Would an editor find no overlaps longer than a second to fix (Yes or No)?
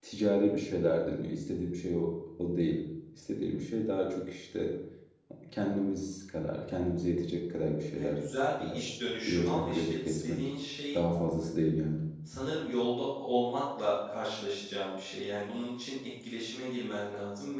No